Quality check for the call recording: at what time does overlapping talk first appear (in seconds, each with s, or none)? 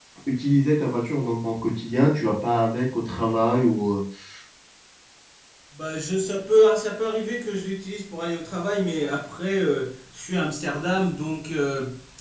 none